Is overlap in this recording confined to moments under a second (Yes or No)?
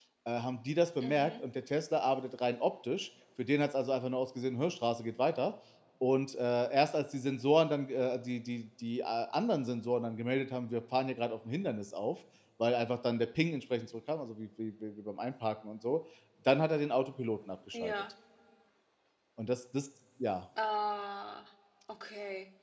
Yes